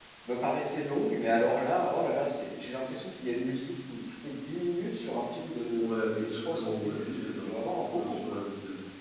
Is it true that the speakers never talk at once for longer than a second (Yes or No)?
No